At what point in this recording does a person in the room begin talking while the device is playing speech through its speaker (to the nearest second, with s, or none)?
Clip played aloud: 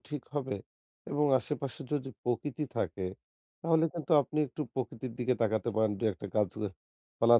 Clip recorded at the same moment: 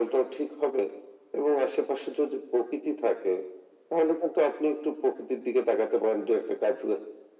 none